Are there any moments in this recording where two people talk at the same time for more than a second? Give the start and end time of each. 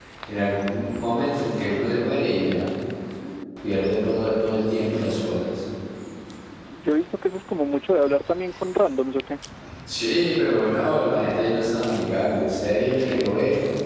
none

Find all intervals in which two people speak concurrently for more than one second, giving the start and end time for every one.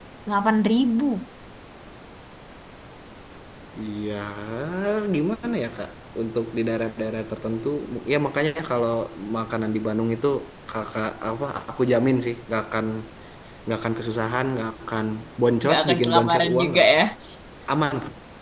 15.6-17.0

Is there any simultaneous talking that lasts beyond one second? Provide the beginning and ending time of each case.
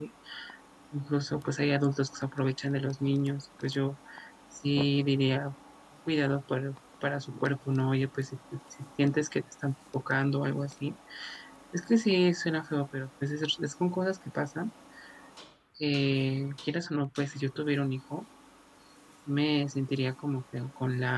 none

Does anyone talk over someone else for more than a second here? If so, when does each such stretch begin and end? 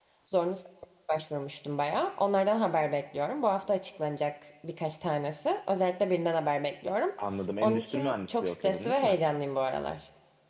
7.6-9.2

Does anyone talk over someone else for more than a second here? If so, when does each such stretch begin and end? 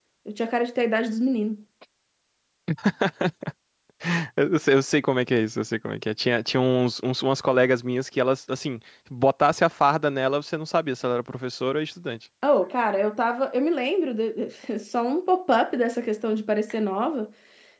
none

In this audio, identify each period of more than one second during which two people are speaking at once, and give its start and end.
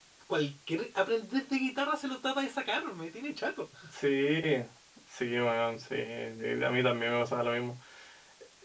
none

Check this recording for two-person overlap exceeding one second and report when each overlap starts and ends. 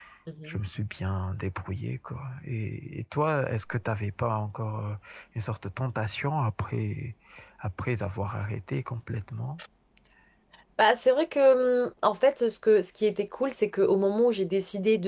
none

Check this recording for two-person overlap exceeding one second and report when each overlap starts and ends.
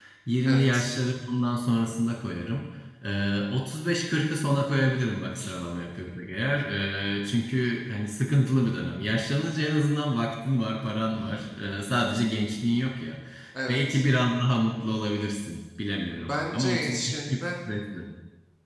16.2-17.4

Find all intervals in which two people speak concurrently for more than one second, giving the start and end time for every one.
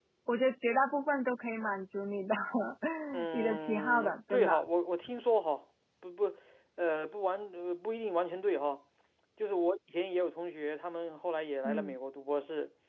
3.3-4.6

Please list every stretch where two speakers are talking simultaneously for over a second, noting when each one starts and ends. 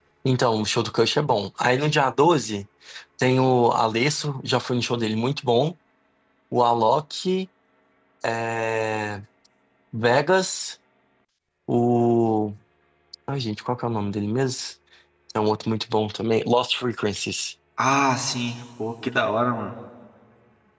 none

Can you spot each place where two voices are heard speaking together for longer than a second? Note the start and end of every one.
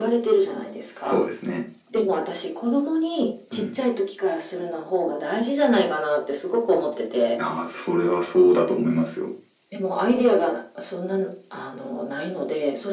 none

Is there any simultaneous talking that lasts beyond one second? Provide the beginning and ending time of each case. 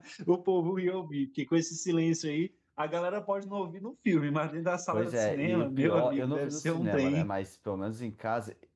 4.9-7.3

